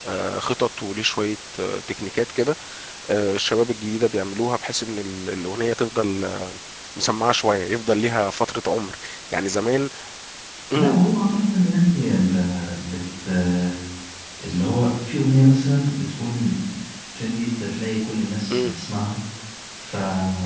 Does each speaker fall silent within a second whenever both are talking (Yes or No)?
Yes